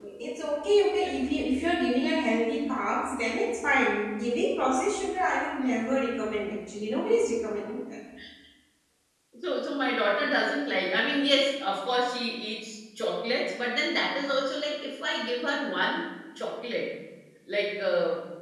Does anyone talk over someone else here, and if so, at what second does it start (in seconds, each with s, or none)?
none